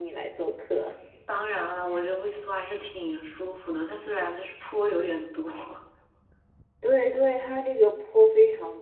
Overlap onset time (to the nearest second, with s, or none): none